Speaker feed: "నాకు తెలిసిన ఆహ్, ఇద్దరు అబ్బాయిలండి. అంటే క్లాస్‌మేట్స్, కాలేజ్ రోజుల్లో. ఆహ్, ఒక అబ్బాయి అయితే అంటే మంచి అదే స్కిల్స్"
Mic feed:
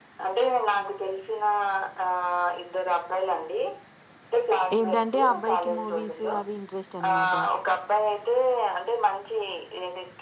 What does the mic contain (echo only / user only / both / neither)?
both